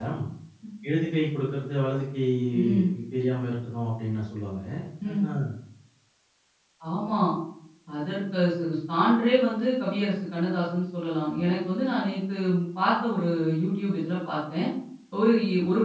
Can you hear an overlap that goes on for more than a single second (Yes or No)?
No